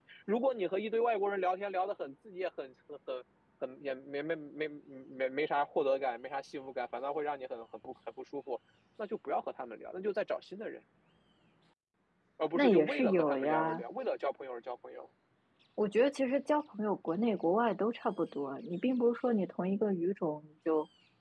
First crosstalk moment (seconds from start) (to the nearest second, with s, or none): 13 s